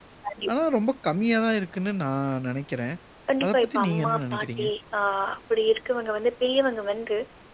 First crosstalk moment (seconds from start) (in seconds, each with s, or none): 3.4 s